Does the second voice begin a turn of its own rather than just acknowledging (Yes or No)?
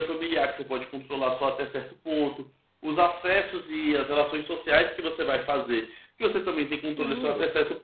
No